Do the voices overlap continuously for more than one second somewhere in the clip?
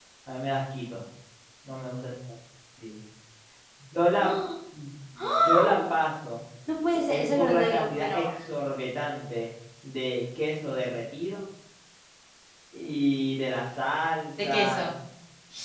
Yes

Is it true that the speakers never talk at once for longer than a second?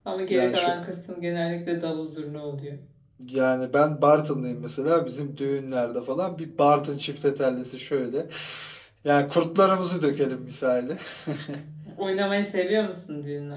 Yes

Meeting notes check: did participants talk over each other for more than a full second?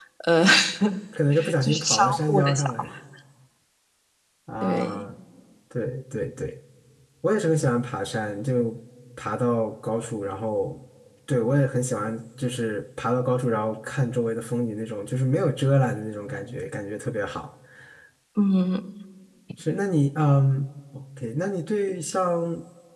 Yes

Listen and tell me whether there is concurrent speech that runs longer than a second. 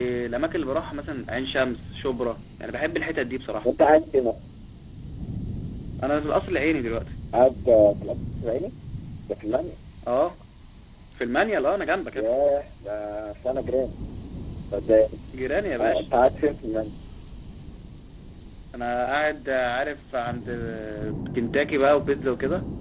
No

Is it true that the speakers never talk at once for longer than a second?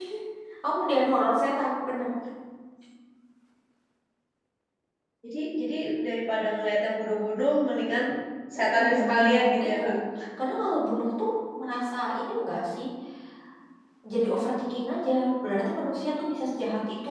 No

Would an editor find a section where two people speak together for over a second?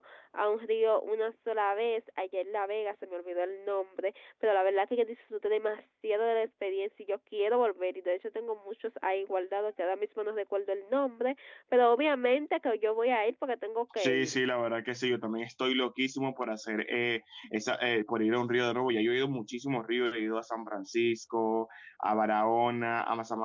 No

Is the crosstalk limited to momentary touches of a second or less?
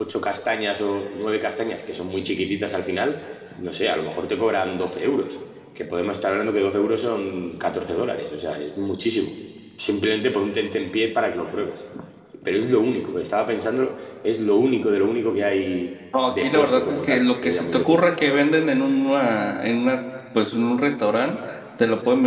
No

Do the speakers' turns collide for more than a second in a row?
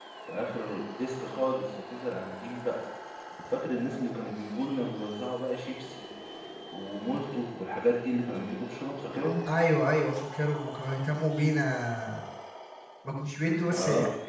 No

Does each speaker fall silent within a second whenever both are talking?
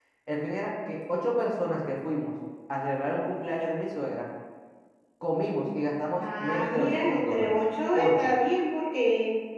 No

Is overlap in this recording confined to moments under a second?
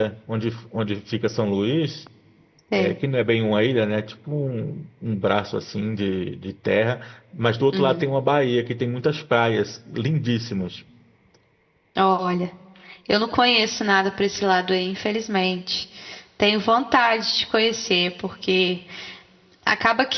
Yes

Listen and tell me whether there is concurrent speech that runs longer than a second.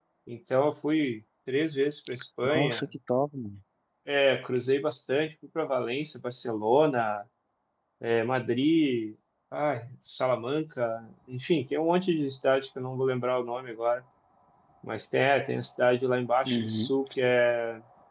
No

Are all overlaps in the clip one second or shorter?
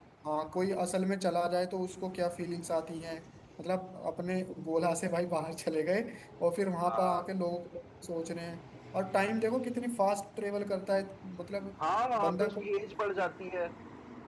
Yes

